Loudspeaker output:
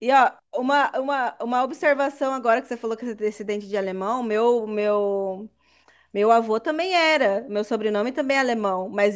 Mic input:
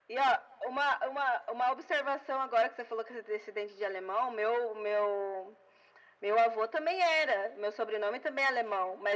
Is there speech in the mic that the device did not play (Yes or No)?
No